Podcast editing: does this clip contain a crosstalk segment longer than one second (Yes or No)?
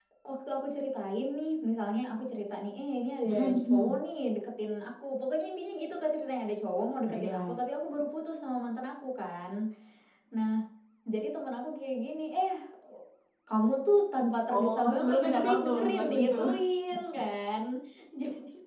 Yes